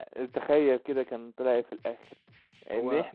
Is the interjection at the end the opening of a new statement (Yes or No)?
No